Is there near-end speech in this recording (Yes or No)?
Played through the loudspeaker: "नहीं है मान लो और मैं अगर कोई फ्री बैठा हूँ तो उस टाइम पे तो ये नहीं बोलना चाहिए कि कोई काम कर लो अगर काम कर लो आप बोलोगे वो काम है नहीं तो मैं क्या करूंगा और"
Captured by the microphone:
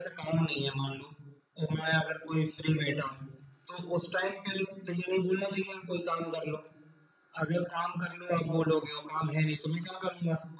No